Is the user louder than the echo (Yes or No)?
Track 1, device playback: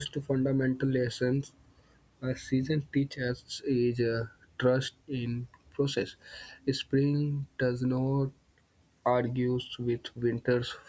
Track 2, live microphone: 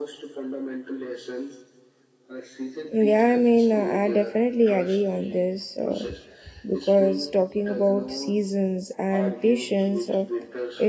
Yes